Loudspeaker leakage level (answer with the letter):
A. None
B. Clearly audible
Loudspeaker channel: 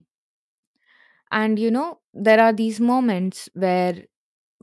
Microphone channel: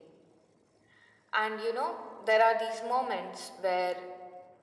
B